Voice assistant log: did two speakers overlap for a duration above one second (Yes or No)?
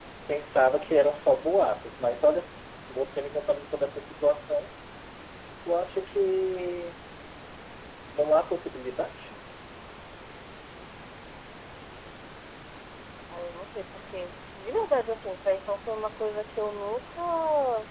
No